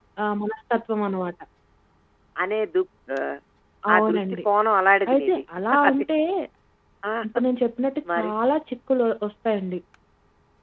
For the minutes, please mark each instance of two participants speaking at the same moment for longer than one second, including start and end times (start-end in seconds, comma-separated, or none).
none